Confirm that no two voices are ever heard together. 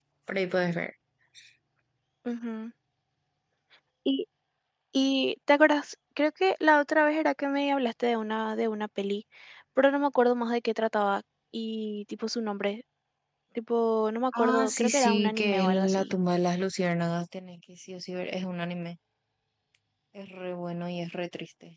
No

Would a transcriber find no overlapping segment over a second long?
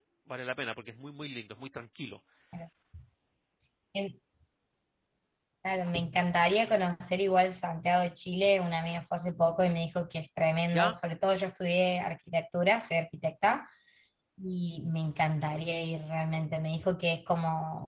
Yes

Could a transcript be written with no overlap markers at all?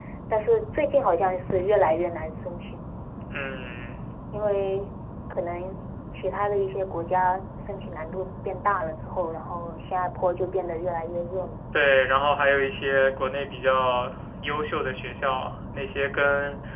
Yes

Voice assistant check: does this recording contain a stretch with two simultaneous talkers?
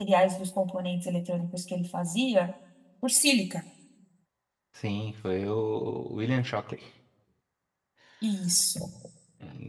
No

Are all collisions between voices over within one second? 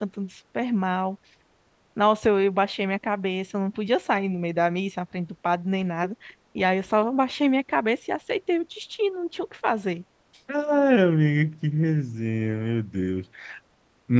Yes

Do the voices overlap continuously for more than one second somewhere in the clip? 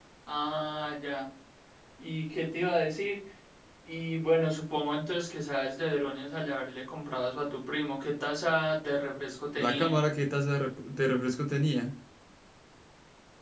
No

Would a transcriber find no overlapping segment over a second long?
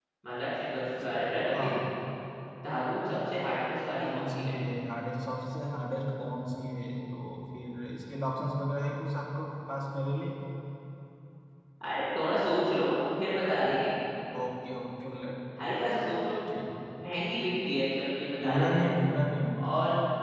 Yes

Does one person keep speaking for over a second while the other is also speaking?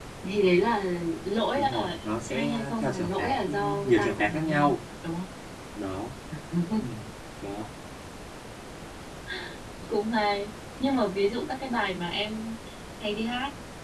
Yes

